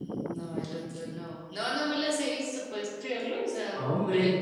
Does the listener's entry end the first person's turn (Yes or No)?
No